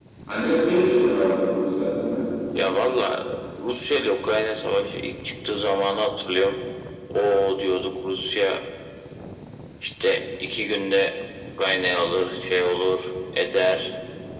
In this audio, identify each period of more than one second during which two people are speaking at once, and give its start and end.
none

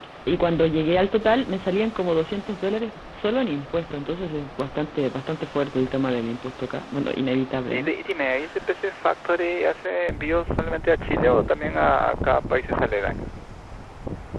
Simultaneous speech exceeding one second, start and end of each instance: none

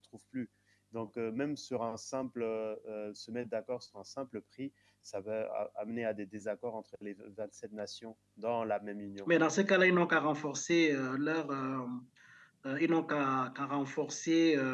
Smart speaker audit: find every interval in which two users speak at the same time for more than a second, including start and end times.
none

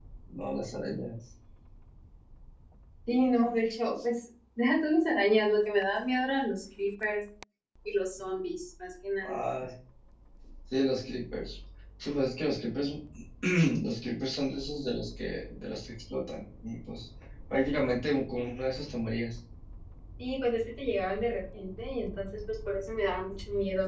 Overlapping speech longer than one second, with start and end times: none

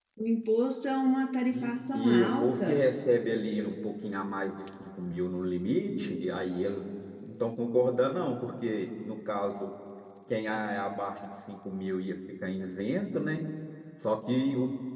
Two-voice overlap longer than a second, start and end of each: 1.5-2.9

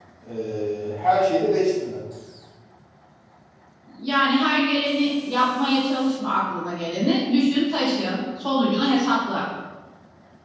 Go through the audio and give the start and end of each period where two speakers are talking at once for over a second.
none

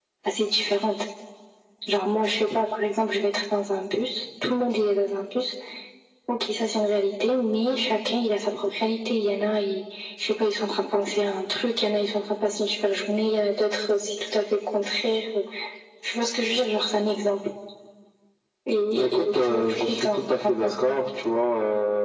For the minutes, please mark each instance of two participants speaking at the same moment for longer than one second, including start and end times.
18.9-21.0

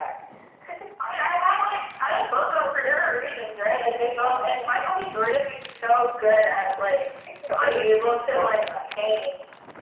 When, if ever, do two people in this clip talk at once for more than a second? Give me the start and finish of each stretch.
7.5-8.9

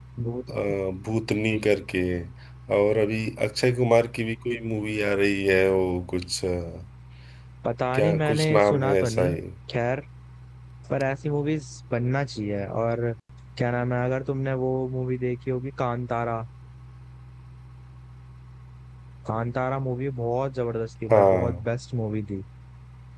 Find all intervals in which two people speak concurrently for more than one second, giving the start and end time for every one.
7.9-9.3

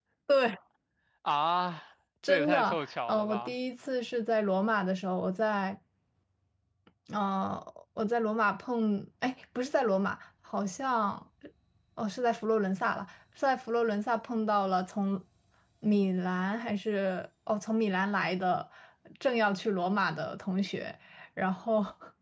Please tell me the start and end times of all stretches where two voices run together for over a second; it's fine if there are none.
2.3-3.5

